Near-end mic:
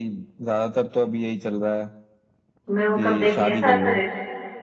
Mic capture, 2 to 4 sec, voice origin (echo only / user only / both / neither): both